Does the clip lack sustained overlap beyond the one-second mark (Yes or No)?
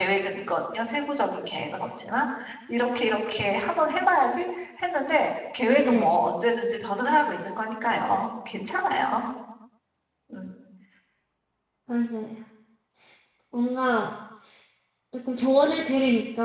Yes